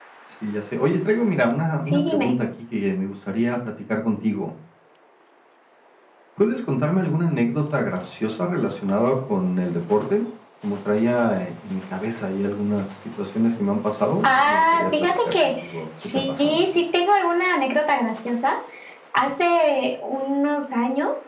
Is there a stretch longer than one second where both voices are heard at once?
Yes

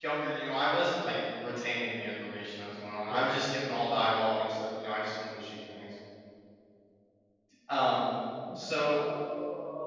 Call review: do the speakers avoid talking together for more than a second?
Yes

